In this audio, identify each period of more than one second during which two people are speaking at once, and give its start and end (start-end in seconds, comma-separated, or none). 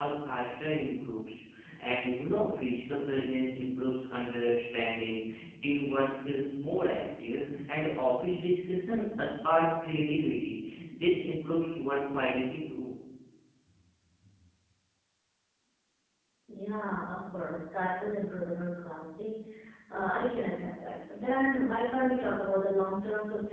none